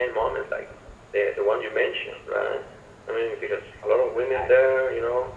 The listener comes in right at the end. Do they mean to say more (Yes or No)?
No